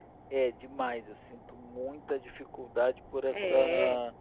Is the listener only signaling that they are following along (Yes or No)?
Yes